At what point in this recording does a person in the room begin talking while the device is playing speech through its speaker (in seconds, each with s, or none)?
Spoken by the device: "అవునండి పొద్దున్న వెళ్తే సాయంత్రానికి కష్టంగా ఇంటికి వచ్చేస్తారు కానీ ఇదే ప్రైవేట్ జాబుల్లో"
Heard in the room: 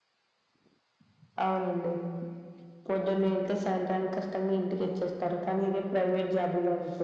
none